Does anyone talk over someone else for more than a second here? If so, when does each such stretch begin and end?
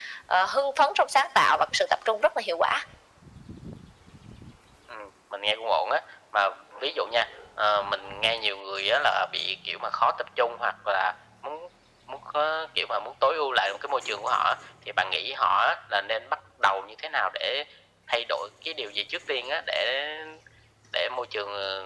none

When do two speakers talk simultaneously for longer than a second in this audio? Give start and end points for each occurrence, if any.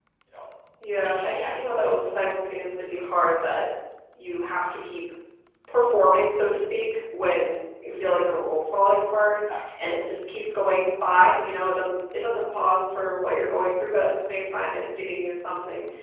1.0-2.2

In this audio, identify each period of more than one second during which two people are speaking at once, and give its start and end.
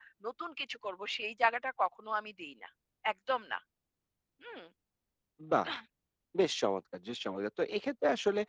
none

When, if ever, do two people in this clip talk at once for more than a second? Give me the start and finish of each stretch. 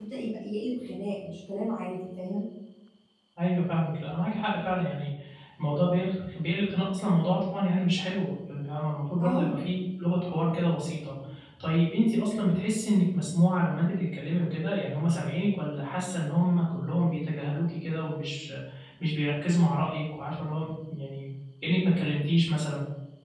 none

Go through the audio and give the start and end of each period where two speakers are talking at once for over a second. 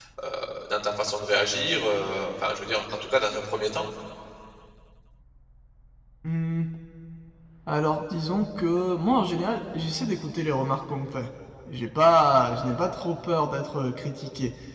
none

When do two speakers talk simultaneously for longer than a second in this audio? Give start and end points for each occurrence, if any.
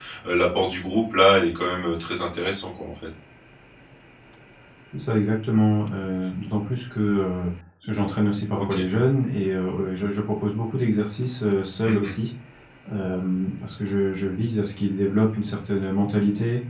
none

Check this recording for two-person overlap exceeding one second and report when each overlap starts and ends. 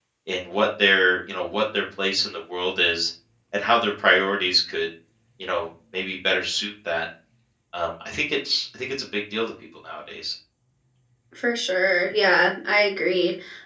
none

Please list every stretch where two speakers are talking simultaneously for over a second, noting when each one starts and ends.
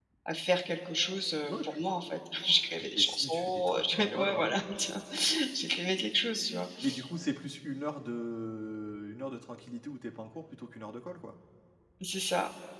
2.8-4.5

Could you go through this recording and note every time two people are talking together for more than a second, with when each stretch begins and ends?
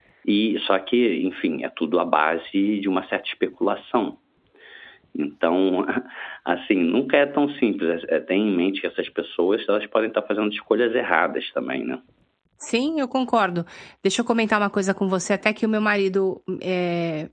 none

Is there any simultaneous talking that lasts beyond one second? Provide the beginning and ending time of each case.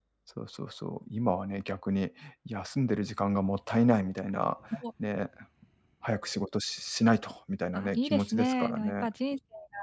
7.7-9.1

